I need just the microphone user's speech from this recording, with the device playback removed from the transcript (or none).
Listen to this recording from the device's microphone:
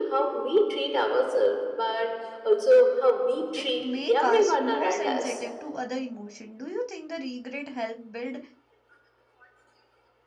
It make us more sensitive to other emotion. Do you think the regret help build